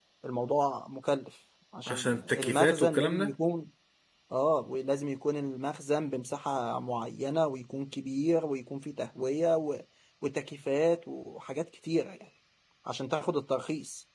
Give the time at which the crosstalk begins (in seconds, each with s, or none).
1.9 s